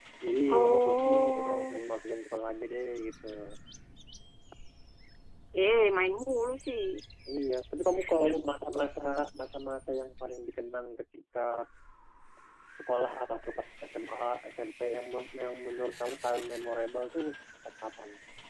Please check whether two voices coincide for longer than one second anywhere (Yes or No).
Yes